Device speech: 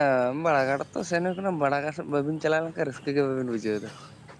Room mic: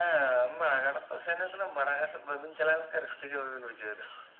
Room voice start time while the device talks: none

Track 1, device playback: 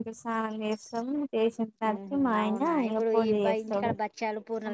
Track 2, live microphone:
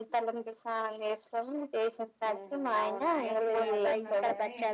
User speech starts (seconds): 3 s

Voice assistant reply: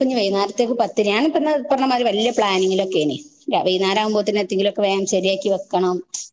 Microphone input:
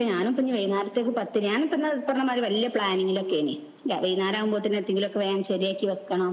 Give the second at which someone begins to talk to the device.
none

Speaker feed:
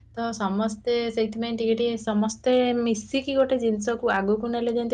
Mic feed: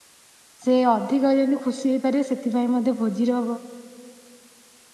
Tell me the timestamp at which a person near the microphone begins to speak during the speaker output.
1 s

